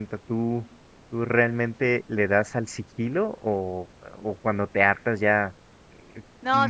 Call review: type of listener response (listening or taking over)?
taking over